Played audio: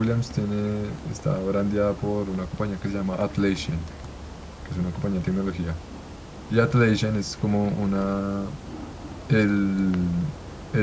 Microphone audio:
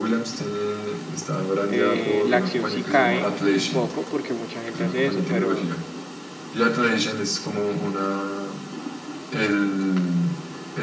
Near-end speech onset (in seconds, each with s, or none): 1.7 s